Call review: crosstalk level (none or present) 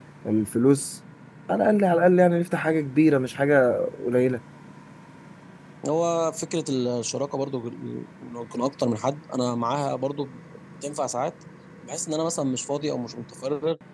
none